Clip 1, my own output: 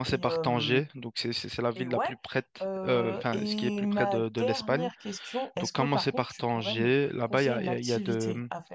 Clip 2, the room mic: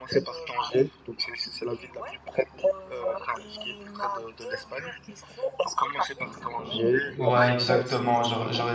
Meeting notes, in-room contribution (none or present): present